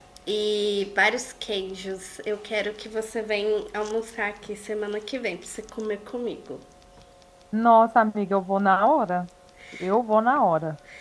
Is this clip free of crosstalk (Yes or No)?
Yes